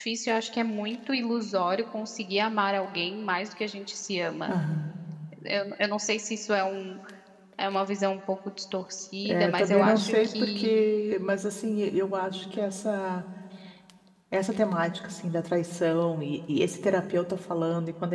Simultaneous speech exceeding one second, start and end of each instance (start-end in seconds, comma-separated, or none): 9.2-10.8